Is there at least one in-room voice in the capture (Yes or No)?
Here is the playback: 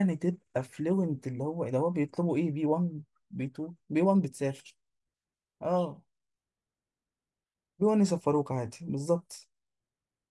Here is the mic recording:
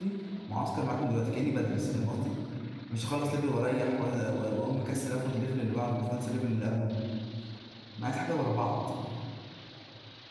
Yes